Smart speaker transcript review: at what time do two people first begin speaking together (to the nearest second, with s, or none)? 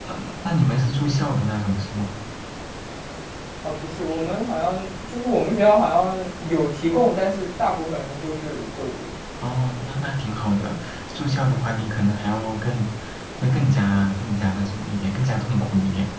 none